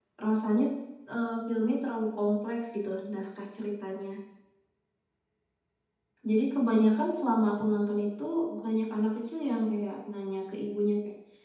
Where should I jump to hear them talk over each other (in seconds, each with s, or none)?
none